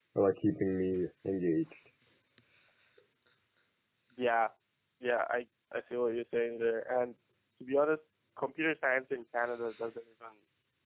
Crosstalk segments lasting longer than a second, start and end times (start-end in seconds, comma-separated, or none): none